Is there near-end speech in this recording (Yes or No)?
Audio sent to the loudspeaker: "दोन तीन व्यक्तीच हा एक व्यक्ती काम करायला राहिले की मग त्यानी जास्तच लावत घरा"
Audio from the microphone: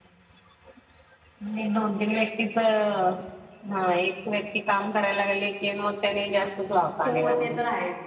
Yes